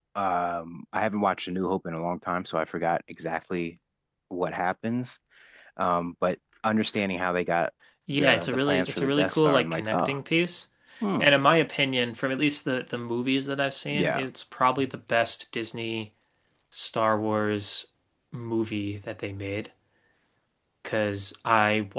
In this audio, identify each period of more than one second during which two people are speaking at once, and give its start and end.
8.1-10.2

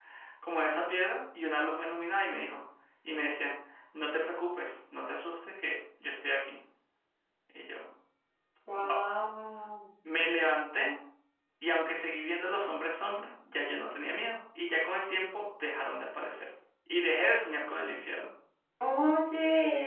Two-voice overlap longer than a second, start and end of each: none

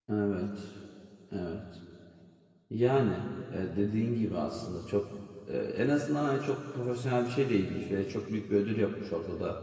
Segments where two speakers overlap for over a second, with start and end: none

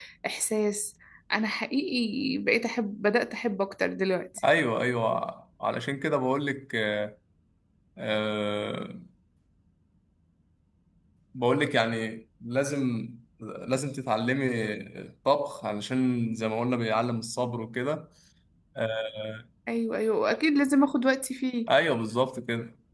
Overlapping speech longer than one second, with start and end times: none

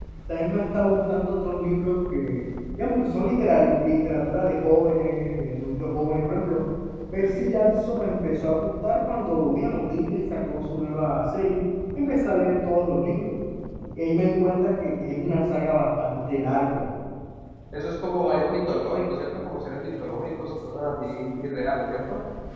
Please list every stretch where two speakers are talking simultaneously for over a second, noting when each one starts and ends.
none

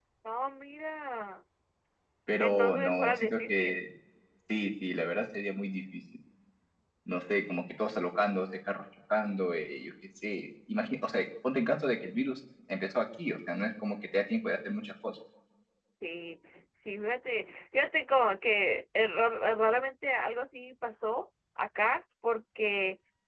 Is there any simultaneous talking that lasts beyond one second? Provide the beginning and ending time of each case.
2.4-3.8

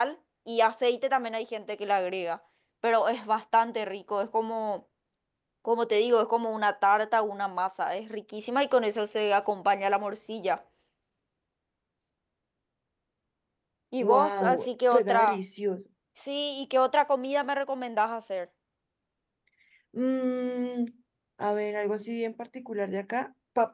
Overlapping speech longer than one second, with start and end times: 14.0-15.4

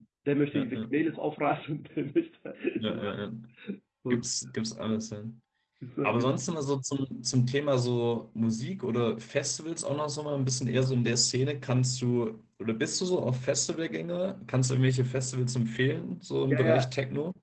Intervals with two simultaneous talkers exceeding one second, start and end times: none

